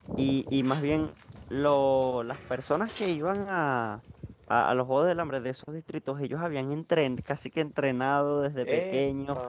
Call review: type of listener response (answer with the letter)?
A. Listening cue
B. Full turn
A